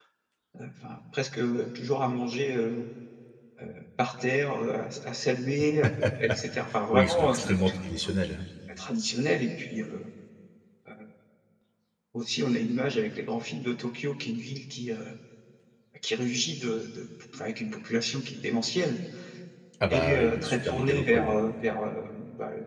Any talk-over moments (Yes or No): Yes